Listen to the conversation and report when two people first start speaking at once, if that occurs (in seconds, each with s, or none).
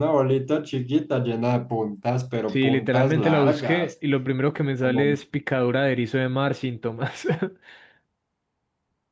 2.5 s